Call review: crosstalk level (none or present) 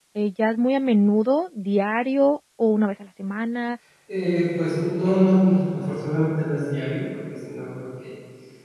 none